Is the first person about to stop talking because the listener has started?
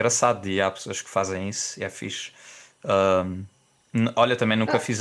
No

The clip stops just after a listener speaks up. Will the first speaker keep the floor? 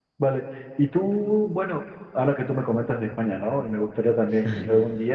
Yes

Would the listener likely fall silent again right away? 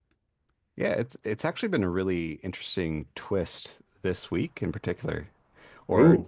Yes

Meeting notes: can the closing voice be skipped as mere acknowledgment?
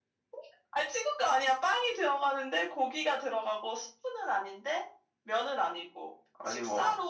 Yes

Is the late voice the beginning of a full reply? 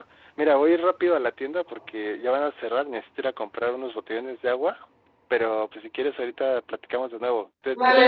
Yes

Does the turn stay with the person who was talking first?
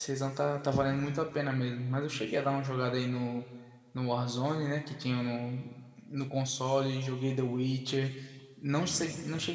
Yes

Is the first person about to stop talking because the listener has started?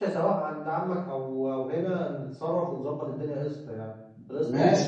Yes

